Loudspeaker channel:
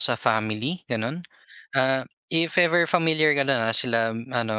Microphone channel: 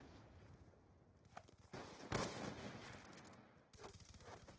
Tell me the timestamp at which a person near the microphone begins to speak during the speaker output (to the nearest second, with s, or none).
none